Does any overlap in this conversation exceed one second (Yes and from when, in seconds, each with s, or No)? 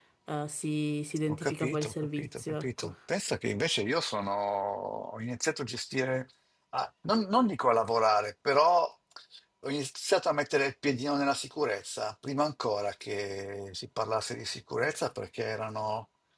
Yes, from 1.3 s